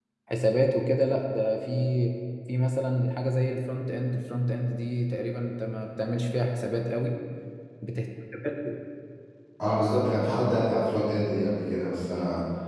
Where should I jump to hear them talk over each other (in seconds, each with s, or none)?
none